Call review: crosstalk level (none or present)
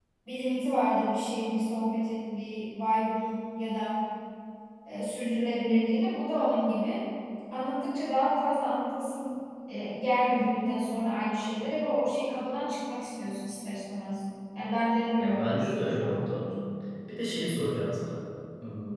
present